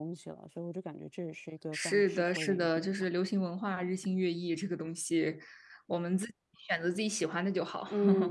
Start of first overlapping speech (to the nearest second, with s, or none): 2 s